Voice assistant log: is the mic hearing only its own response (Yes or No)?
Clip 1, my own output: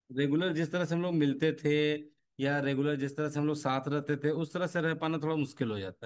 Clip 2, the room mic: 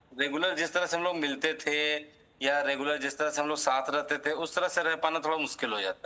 Yes